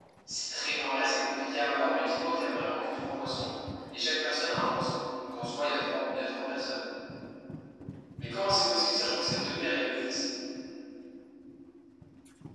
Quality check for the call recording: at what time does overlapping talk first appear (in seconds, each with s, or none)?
none